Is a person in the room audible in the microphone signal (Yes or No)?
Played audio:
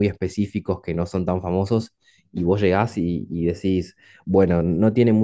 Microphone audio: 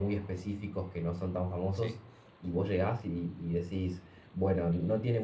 Yes